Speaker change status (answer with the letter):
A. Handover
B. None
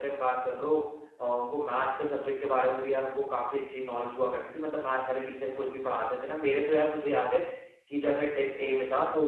B